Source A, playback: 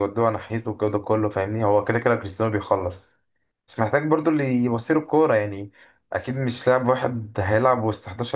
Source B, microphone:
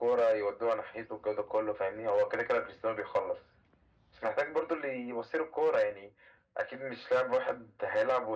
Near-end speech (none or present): none